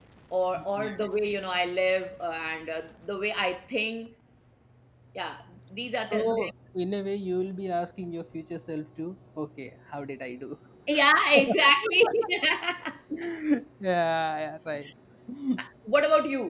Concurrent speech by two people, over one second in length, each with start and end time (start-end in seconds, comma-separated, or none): none